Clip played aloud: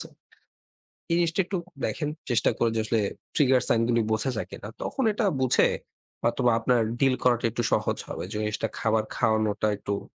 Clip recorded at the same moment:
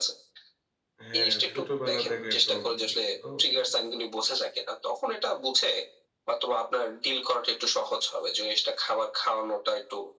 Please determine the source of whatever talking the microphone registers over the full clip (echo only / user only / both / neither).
both